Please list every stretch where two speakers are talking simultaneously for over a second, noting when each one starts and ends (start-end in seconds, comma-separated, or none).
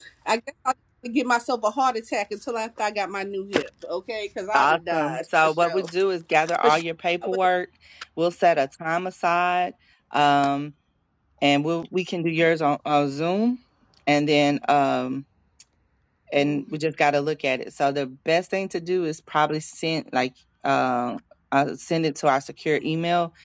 4.5-5.8